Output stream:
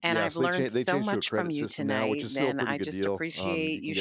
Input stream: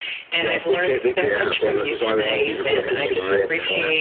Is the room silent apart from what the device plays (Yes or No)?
No